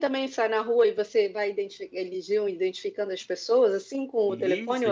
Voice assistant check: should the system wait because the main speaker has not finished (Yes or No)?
No